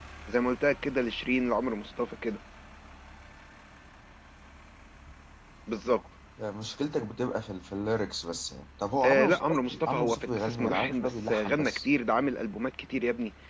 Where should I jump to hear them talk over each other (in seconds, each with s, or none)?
9.0 s